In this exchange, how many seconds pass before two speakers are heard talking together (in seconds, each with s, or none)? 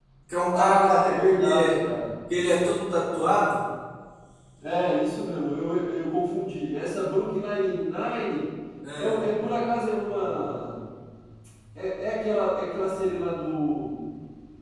0.5 s